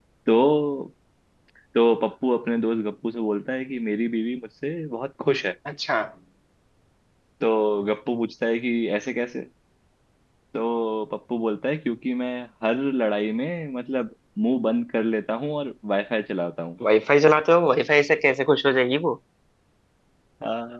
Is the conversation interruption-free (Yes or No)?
Yes